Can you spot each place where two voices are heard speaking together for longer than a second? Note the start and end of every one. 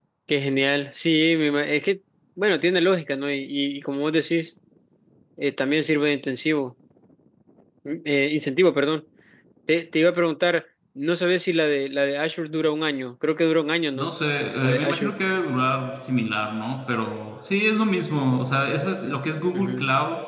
none

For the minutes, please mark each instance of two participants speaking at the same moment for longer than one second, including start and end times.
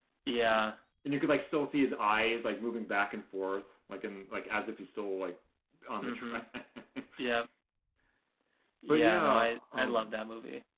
8.9-10.1

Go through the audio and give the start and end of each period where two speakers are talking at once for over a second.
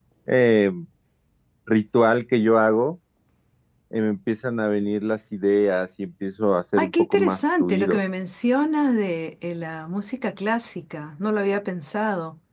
6.8-8.0

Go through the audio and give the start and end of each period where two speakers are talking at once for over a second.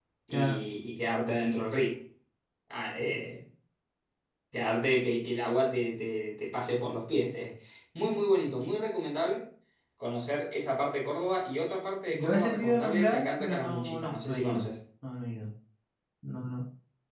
12.1-14.6

